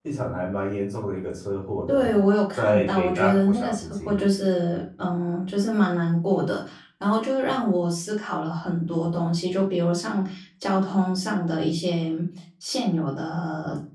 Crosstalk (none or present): present